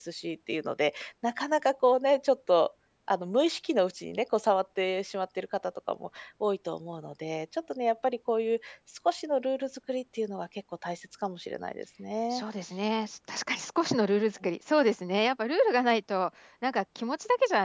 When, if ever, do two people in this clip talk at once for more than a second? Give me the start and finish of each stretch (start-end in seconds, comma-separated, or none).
none